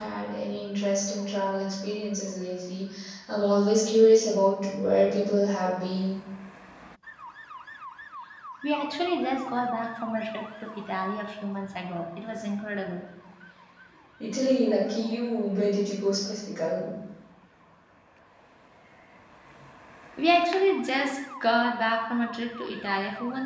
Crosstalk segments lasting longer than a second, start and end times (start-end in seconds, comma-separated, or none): none